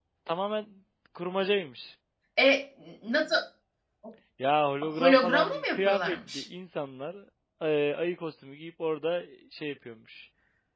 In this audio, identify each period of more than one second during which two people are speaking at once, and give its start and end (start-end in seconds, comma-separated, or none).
4.8-6.4